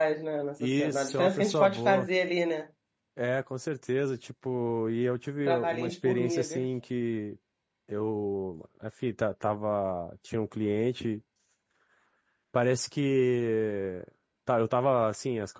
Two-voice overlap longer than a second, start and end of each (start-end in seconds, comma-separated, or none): 0.6-2.1, 5.5-6.7